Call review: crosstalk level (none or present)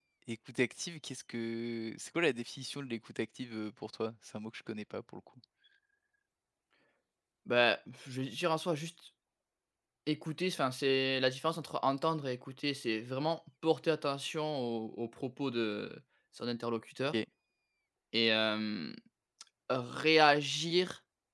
none